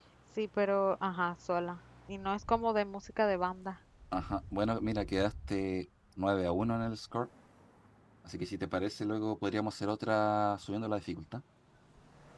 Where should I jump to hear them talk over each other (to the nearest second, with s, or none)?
none